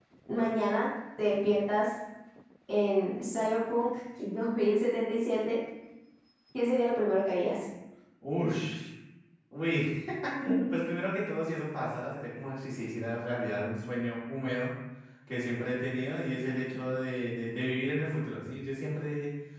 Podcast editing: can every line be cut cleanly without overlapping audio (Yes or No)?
Yes